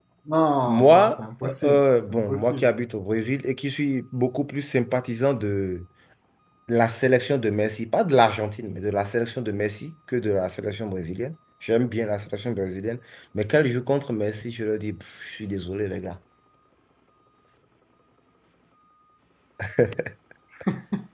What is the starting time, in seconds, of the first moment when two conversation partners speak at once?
1 s

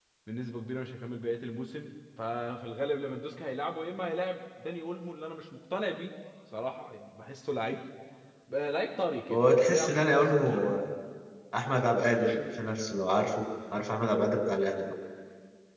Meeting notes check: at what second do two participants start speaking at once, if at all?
9 s

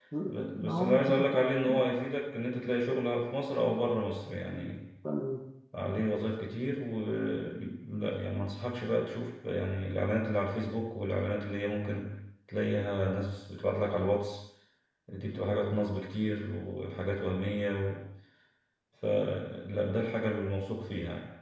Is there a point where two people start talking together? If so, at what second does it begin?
1 s

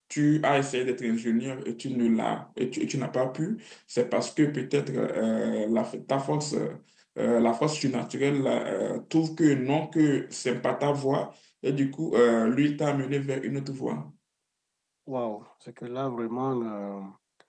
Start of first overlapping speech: none

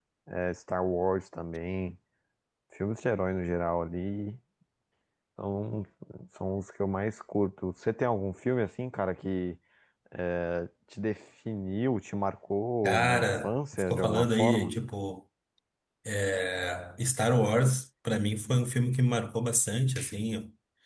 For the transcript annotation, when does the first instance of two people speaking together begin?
13 s

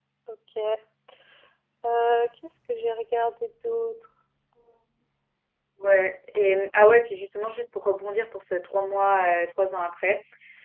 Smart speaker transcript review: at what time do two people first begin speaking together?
none

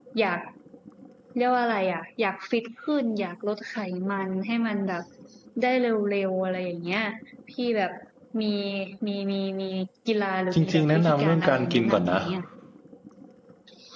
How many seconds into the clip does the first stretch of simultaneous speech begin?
11 s

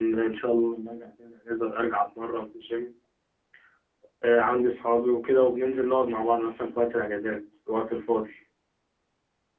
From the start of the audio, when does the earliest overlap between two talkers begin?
none

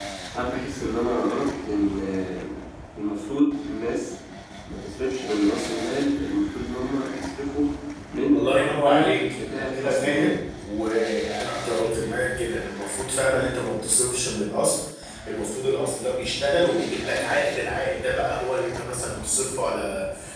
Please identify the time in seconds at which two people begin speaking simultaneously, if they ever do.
8 s

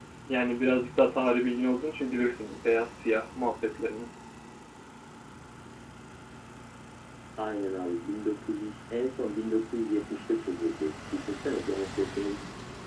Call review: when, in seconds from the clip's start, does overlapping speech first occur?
none

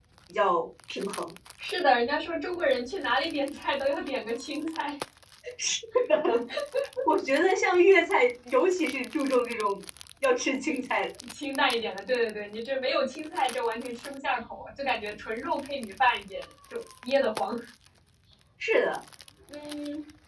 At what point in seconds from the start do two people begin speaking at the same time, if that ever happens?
none

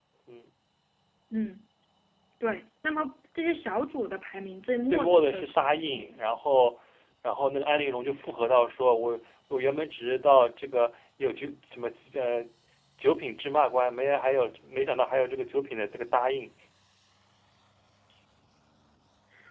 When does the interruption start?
5 s

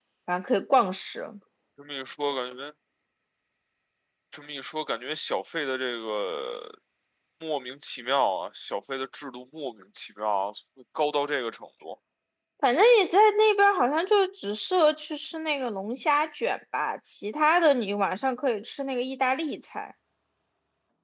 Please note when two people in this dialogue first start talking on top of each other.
none

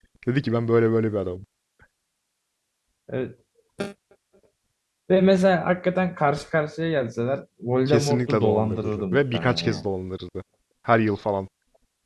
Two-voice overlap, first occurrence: 8 s

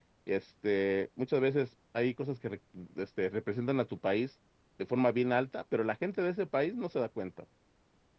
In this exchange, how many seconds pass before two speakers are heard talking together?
none

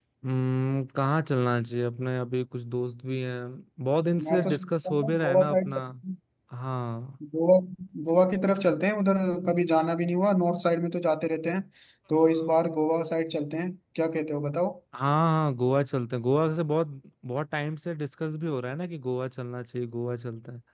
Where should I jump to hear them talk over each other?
4 s

